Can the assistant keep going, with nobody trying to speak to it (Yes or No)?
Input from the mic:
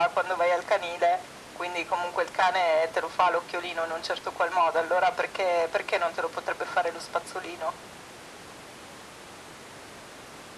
Yes